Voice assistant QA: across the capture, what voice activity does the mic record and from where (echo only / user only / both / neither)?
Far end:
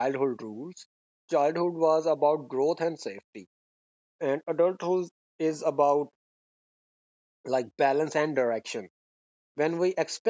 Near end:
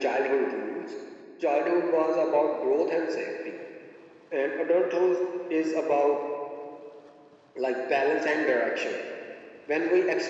echo only